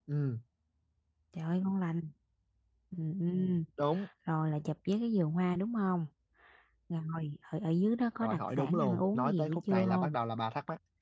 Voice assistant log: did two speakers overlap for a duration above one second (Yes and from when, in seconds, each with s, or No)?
Yes, from 8.2 s